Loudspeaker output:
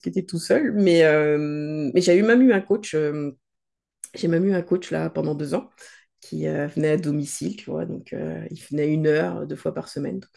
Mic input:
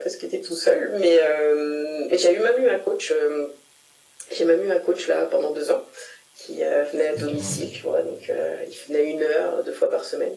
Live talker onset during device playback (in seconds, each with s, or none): 7.2 s